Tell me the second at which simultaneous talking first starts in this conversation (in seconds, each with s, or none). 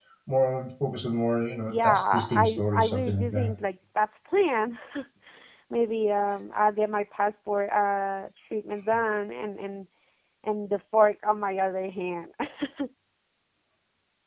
1.7 s